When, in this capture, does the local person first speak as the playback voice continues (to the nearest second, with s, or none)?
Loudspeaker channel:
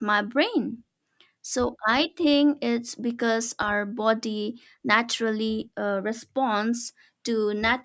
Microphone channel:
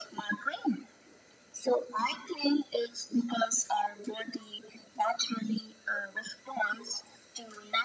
none